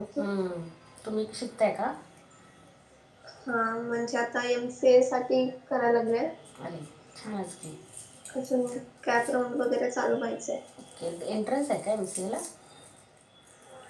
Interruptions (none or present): none